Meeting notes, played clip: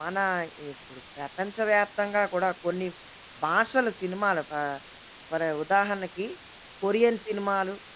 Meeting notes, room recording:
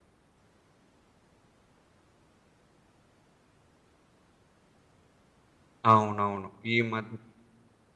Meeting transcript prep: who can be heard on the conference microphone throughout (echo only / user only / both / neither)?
user only